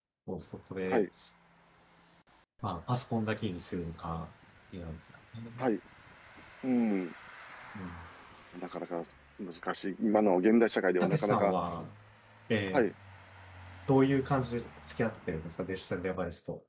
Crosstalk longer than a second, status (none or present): none